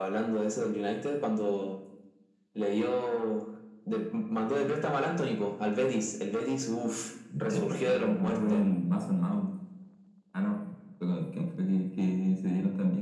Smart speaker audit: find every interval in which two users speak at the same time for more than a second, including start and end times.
7.4-8.6

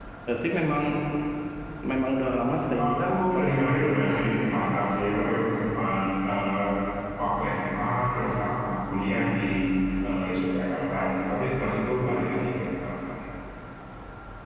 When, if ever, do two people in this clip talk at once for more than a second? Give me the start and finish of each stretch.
2.8-4.1

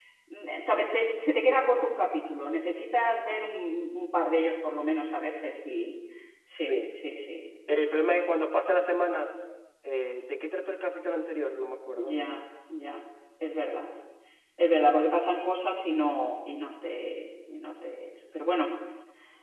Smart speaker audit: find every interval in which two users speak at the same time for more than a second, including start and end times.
none

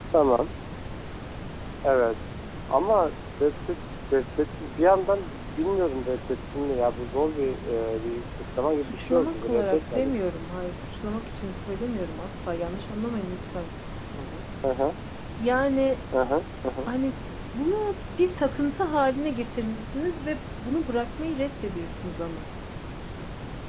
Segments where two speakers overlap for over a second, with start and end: 8.9-10.1

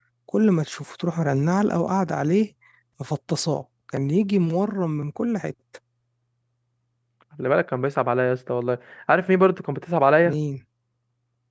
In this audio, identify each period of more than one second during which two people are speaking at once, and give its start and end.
none

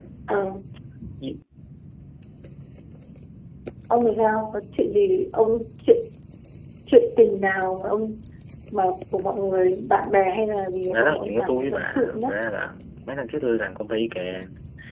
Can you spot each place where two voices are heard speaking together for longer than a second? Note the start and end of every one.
10.9-12.3

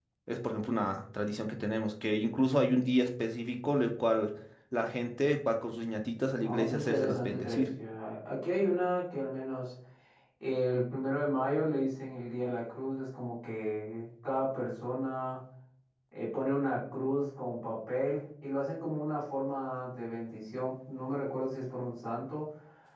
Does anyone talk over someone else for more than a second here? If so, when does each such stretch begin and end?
6.4-7.7

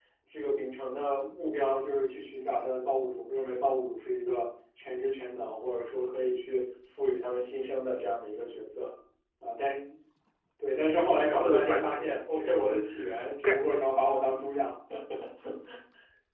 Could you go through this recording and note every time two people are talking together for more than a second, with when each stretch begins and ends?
11.1-12.5

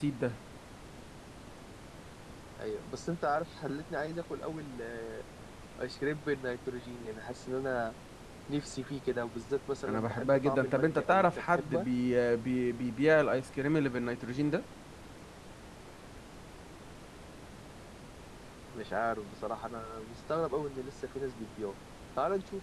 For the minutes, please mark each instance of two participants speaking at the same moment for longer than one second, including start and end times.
9.9-11.9

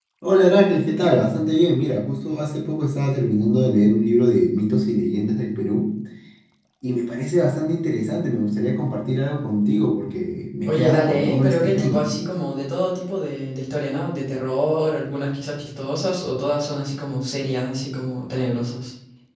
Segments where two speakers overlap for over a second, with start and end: 10.6-12.1

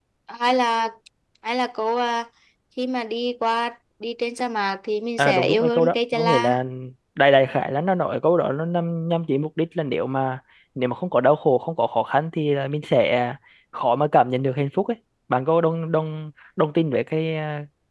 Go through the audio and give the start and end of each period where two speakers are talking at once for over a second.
5.2-6.6

